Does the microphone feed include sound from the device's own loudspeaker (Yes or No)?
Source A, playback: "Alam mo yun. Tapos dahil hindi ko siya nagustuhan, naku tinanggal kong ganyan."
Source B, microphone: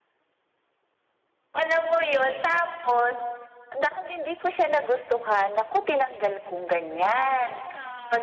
Yes